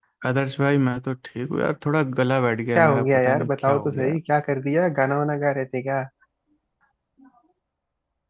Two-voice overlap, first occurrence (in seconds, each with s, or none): 2.8 s